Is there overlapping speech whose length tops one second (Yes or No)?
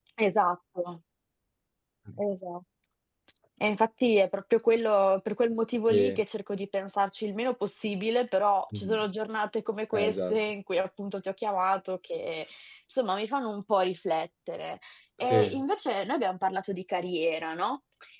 No